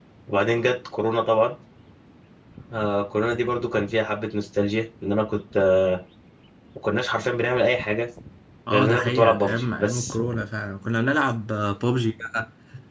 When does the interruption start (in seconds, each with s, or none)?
8.7 s